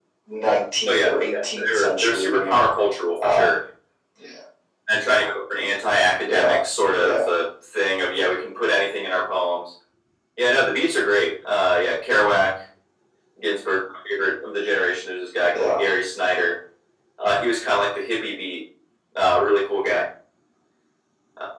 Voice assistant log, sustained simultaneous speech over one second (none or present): present